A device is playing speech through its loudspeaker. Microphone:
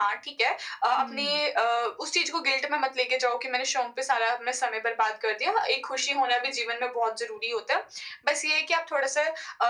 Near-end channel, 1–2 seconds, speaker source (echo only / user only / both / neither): both